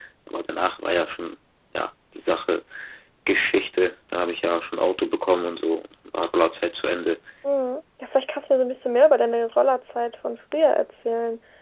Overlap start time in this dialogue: none

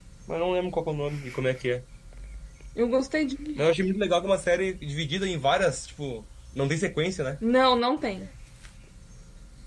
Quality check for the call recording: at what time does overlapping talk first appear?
none

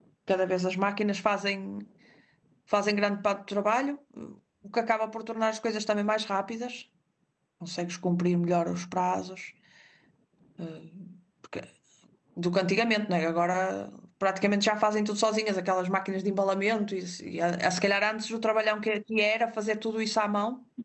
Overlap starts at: none

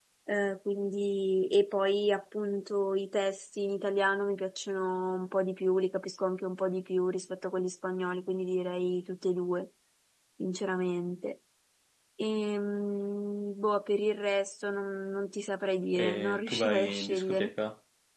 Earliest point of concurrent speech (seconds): 15.9 s

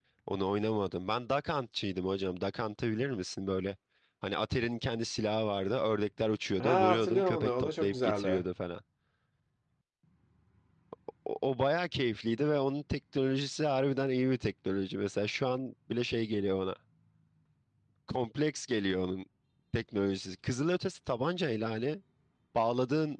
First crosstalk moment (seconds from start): 6.6 s

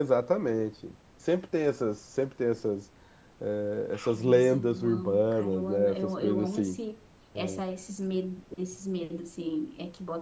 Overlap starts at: 3.9 s

